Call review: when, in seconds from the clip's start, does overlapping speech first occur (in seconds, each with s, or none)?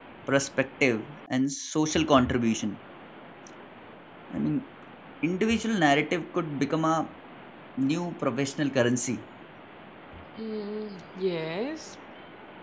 none